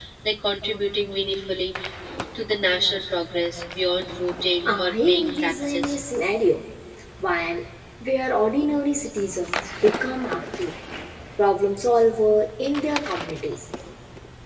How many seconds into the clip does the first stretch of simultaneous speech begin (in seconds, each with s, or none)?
4.7 s